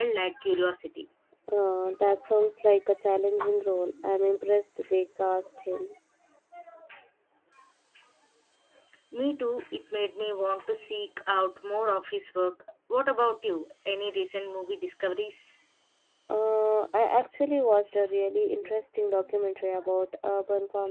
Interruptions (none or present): none